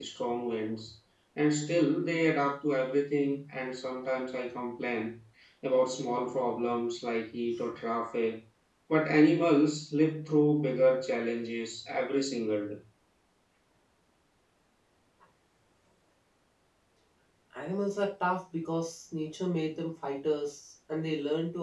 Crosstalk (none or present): none